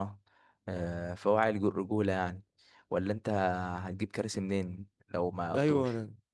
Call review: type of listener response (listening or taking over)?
taking over